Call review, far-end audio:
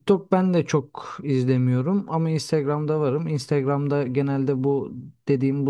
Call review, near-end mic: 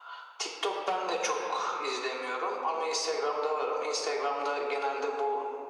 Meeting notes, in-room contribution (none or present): none